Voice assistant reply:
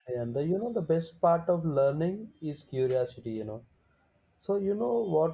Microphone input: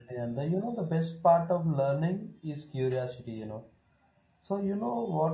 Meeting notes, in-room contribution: none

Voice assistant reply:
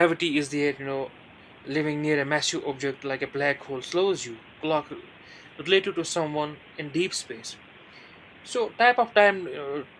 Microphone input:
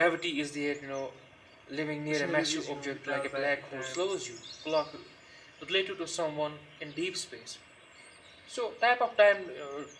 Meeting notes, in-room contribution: present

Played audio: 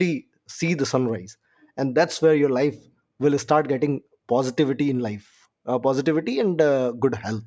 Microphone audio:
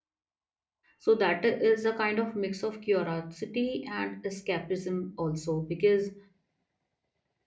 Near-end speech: present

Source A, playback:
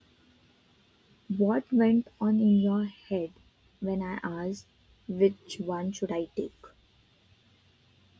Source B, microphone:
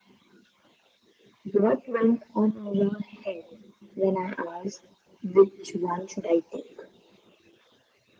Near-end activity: none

